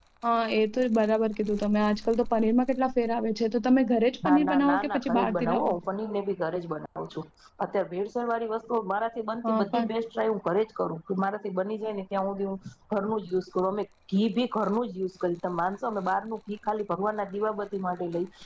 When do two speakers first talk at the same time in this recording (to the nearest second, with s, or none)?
4 s